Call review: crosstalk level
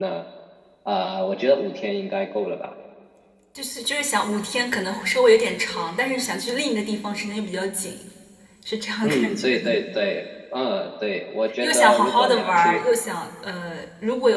present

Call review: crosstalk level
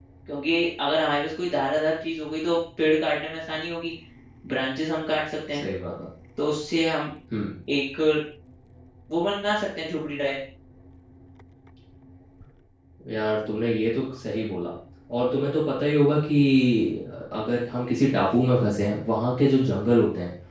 none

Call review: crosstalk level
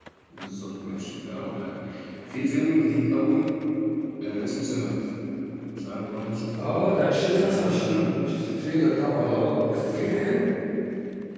present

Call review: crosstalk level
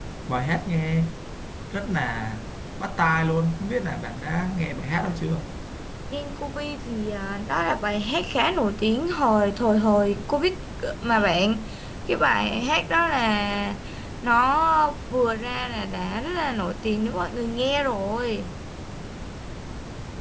none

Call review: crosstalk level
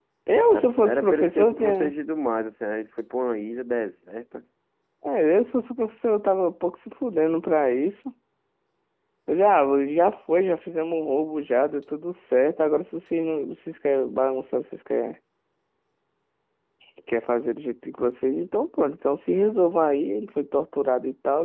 present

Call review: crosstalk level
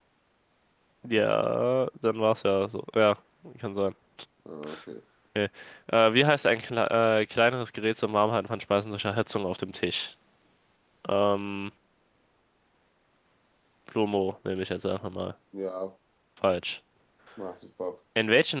none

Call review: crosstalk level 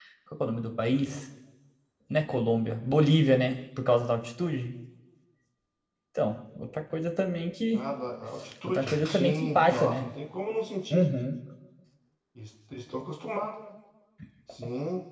present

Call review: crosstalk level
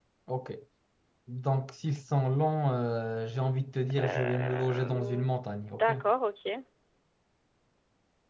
present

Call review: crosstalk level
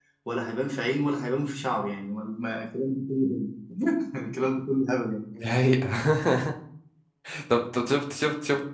none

